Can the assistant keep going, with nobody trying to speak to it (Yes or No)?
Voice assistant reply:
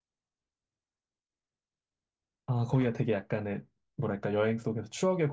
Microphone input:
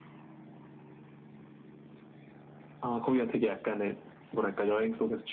Yes